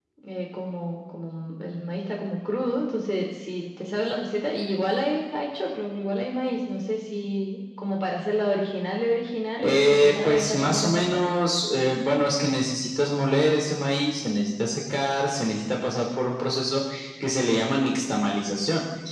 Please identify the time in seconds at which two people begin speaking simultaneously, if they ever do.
9.6 s

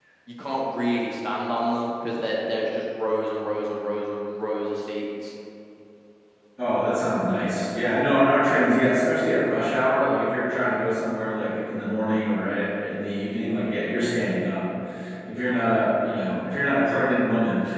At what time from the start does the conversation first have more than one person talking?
none

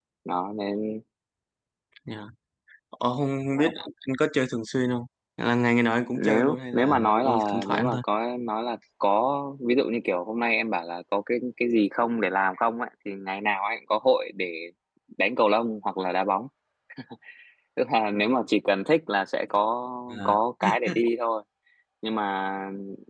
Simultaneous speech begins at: 6.1 s

